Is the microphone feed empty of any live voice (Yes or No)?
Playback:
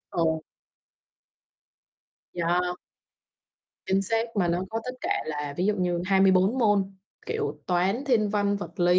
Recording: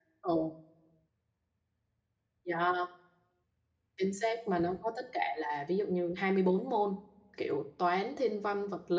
Yes